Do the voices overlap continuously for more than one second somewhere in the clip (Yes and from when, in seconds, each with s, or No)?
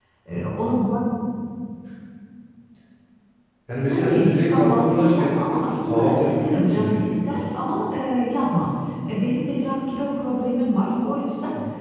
Yes, from 3.9 s